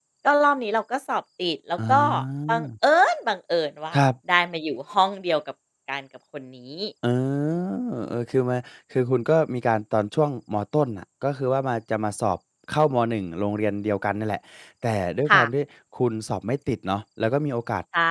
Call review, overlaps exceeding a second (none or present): none